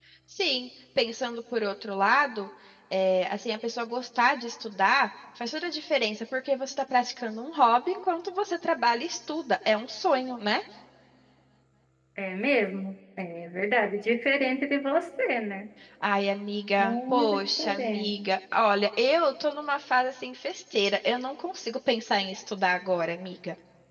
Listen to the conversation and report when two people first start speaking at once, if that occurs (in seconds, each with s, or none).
16.8 s